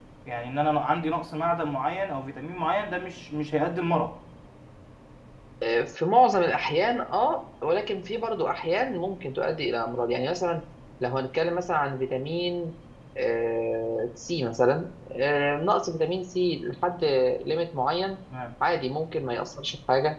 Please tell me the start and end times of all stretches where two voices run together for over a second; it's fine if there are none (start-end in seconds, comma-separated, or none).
none